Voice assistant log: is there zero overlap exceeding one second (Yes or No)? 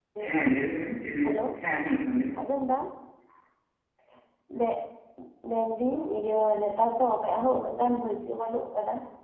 Yes